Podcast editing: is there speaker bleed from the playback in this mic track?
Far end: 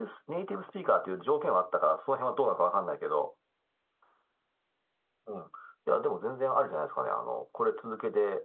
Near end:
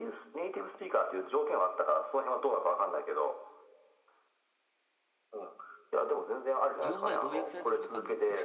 Yes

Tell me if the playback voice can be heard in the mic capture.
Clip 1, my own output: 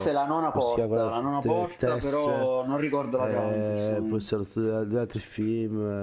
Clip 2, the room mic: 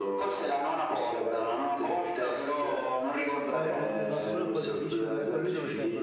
Yes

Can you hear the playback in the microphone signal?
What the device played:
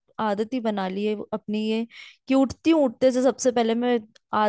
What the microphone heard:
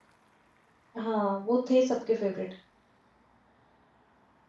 No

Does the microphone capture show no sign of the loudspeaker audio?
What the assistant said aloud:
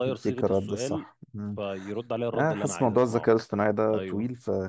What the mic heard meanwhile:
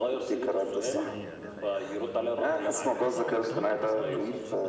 No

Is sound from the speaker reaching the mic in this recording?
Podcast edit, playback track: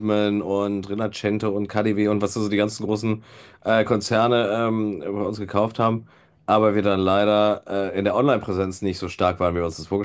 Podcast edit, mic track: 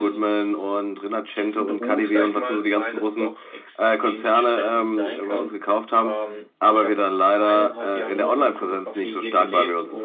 Yes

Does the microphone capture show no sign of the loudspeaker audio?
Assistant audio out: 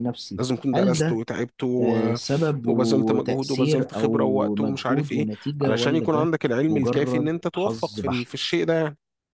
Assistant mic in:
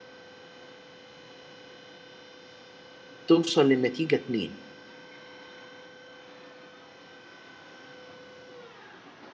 Yes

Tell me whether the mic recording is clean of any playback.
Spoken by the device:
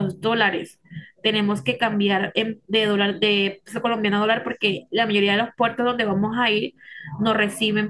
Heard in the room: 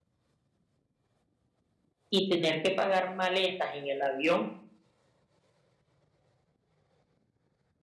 Yes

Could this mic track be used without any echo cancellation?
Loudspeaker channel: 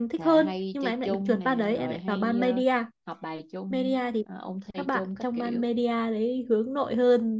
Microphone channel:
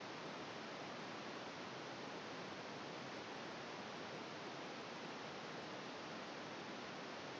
Yes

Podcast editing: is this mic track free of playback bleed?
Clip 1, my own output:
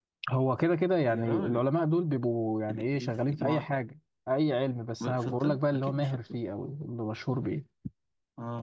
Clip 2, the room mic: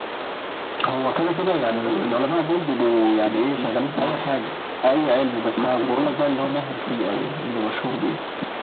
No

